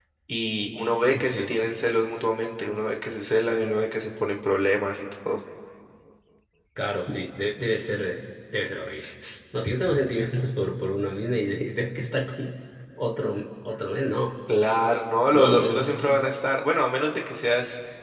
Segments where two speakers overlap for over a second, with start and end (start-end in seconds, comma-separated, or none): none